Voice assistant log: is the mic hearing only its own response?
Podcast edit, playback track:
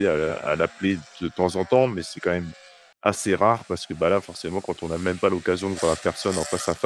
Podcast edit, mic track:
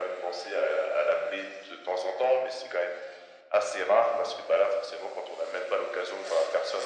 Yes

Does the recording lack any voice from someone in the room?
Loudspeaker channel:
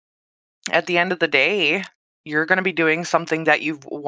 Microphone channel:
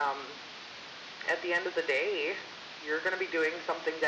Yes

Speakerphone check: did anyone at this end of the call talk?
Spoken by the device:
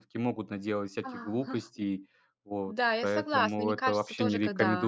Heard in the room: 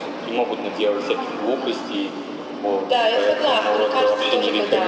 No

